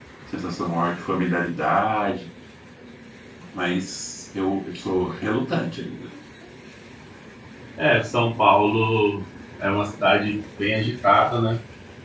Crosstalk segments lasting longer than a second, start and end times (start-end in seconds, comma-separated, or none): none